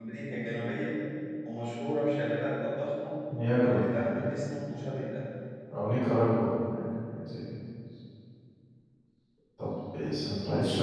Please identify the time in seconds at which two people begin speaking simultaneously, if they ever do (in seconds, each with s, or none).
none